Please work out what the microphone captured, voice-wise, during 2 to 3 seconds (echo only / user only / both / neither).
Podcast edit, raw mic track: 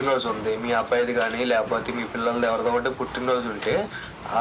echo only